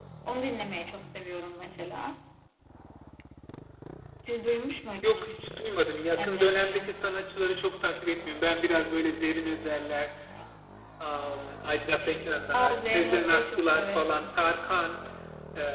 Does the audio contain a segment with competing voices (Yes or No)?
Yes